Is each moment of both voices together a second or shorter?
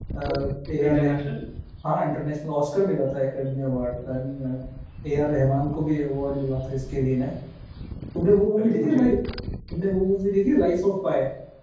Yes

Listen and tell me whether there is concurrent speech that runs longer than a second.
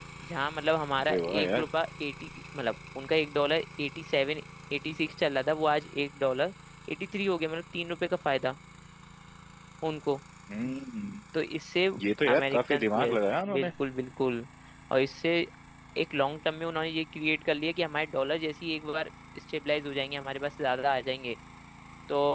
Yes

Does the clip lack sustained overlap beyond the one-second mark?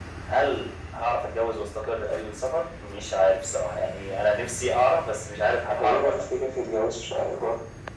Yes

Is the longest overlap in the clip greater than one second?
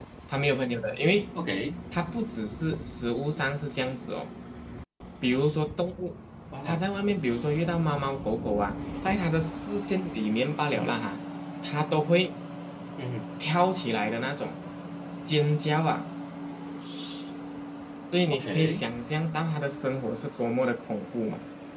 No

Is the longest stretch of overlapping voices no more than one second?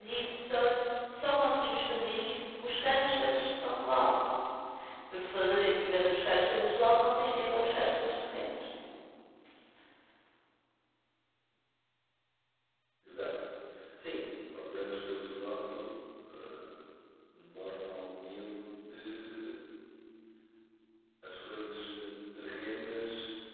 Yes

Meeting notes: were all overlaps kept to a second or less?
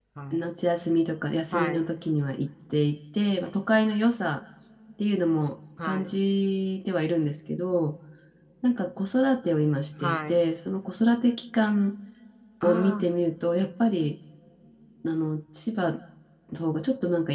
Yes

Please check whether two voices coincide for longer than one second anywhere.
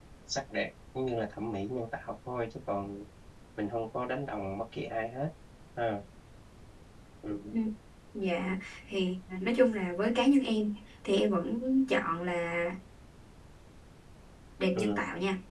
No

